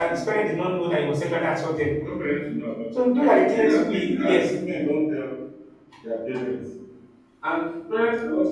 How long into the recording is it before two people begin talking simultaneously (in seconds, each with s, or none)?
3.2 s